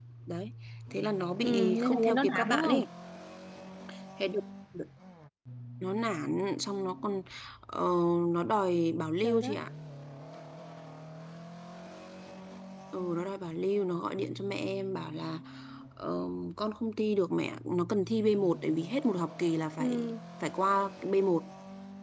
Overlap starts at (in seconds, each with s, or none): 1.4 s